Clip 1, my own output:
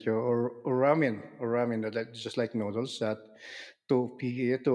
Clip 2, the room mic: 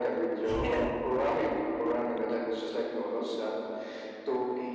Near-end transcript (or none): Yeah,